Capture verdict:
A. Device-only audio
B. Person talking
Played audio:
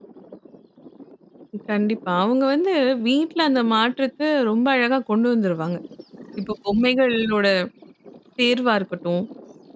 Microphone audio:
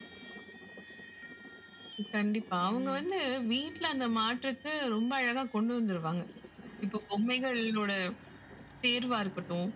B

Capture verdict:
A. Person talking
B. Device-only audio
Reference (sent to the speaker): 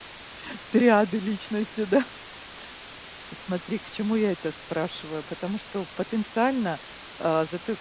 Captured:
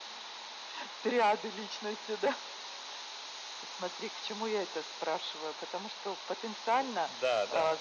A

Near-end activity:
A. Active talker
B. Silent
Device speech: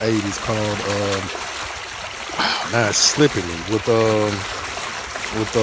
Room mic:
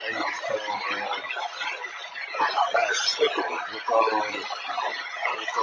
B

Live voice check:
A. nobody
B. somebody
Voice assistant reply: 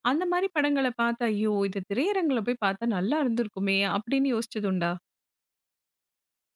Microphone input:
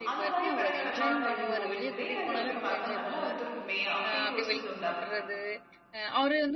B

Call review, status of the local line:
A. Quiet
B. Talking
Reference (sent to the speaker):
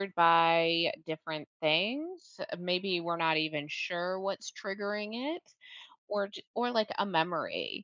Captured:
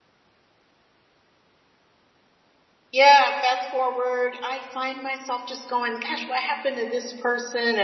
B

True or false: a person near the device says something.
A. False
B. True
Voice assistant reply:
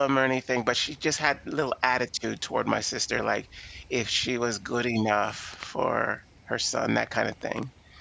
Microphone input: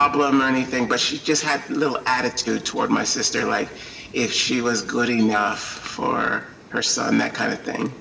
A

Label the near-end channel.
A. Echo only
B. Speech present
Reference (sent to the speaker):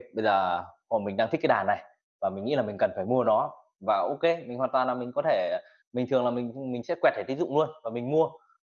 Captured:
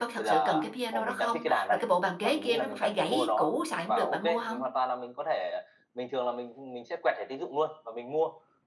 B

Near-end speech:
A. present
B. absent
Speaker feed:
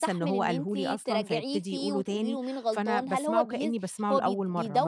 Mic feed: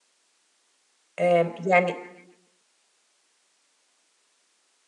A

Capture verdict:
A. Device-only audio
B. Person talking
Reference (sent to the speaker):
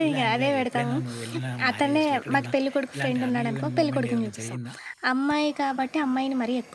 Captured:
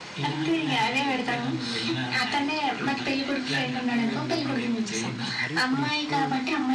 B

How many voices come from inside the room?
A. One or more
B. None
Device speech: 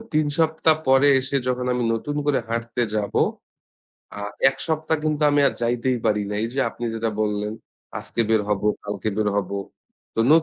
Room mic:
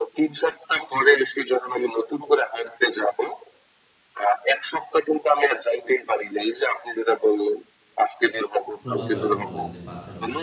A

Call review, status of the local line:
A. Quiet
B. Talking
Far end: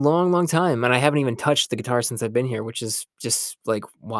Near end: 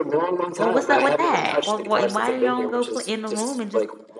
B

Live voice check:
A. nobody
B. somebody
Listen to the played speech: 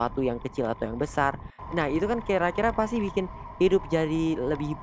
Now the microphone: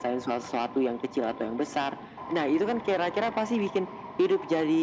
A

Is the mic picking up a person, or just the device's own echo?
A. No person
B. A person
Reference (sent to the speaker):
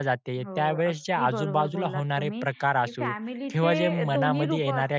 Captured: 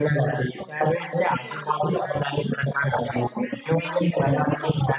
A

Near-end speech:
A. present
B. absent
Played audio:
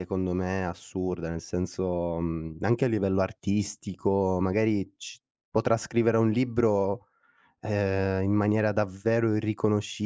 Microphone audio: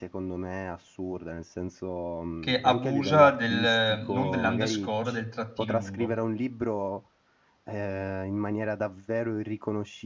A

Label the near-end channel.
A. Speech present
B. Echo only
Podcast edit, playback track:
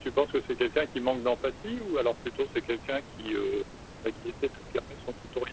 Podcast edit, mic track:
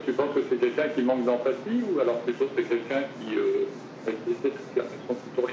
B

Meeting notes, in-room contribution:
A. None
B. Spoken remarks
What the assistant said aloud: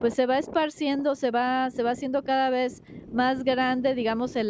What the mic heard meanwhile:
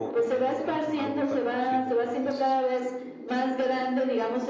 B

